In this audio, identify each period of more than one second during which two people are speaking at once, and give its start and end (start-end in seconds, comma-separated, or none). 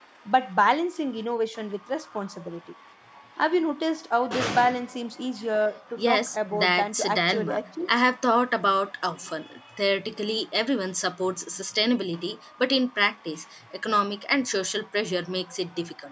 6.0-7.6